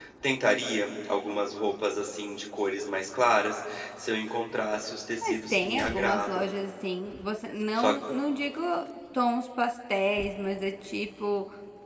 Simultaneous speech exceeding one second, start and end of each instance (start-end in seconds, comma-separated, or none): 5.2-6.5